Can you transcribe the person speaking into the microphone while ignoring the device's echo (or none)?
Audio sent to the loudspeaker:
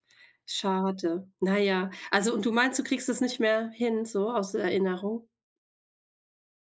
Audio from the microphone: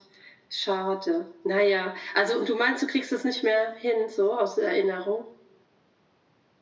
none